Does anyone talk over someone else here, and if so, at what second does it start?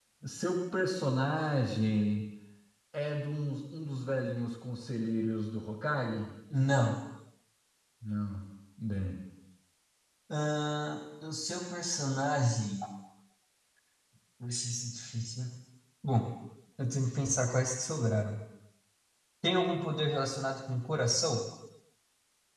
none

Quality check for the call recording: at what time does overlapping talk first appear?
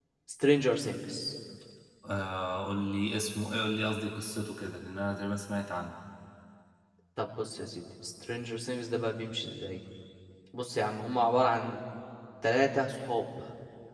none

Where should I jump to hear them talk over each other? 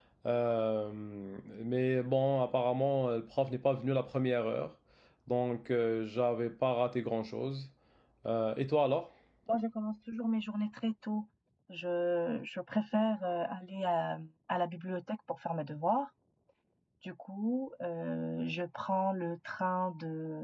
none

